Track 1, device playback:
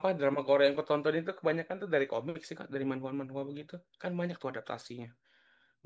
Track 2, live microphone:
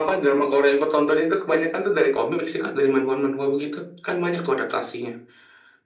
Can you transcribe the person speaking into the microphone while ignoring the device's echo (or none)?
none